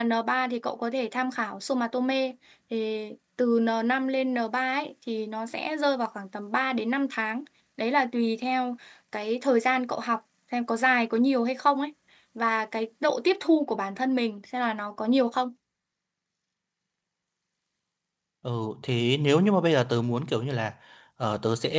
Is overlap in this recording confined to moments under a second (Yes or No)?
Yes